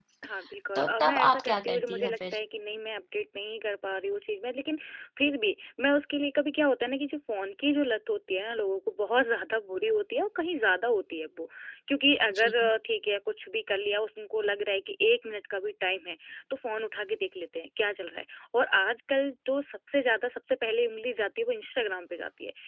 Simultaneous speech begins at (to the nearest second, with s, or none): 1 s